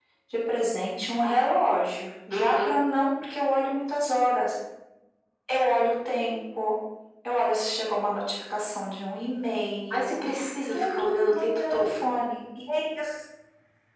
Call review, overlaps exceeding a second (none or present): present